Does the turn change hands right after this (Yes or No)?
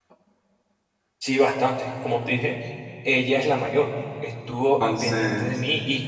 No